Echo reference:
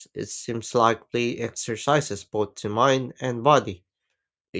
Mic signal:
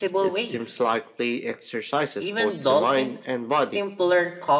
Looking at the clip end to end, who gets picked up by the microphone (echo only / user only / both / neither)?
both